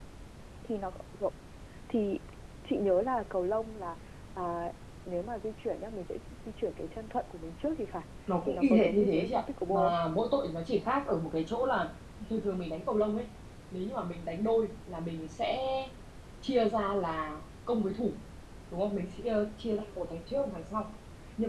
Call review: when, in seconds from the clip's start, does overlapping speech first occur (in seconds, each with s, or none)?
8.4 s